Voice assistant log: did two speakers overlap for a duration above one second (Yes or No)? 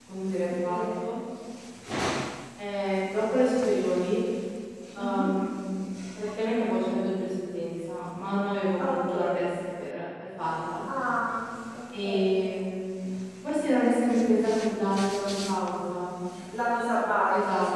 No